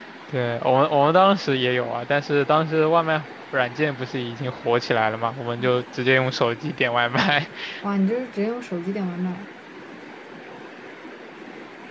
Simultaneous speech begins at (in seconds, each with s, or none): none